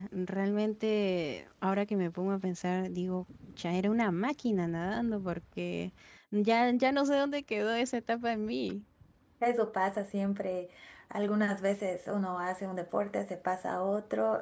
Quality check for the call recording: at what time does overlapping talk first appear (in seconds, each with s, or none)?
none